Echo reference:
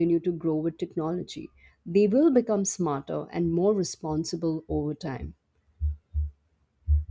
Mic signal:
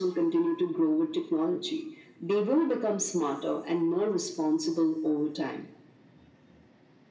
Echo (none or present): present